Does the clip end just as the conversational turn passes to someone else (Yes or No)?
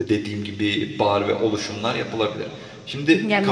Yes